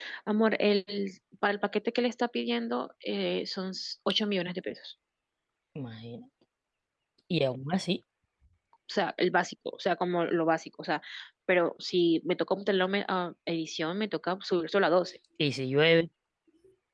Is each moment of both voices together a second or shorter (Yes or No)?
Yes